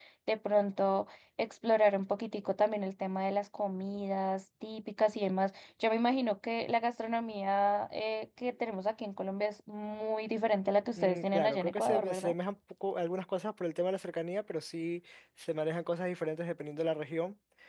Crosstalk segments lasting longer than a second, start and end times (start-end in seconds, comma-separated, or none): 11.0-12.3